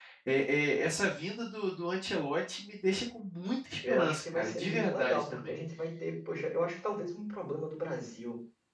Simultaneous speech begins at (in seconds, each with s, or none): 3.8 s